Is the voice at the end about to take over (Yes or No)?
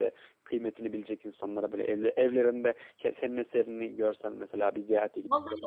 Yes